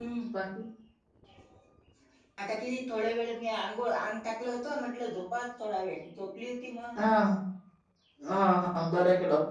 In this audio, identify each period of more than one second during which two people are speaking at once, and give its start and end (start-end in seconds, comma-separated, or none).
none